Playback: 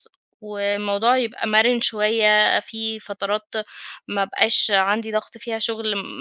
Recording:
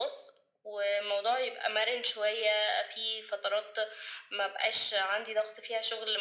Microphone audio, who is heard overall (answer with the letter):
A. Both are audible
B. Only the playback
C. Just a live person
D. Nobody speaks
B